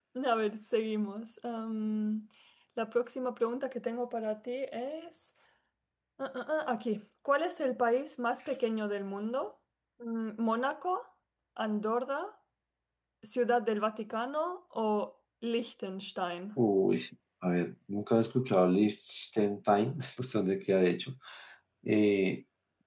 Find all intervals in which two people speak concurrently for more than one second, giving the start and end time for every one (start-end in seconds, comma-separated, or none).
none